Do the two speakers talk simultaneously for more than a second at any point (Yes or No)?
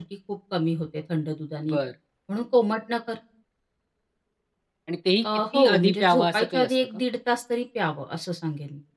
Yes